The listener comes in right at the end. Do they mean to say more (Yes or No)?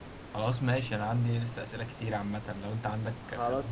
Yes